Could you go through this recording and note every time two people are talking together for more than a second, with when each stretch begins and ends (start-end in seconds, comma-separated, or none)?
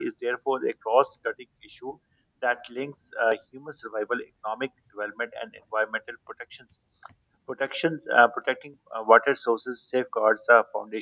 none